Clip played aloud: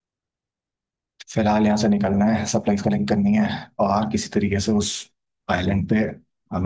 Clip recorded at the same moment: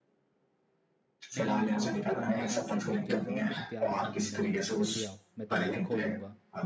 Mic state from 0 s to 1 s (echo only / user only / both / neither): neither